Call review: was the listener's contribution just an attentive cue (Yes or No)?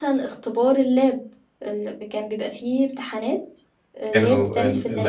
No